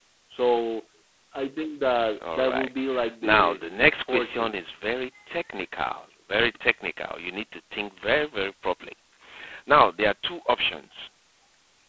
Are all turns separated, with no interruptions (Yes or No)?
No